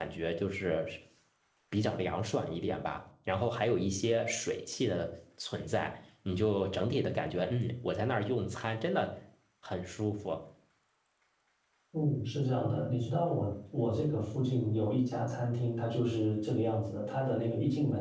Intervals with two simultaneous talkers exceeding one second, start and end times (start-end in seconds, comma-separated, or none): none